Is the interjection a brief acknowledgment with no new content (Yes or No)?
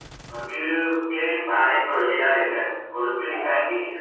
Yes